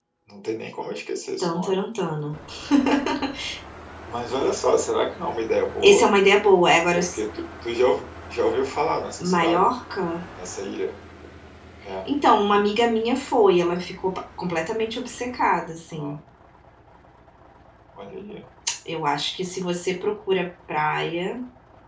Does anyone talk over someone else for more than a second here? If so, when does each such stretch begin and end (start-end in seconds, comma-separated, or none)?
none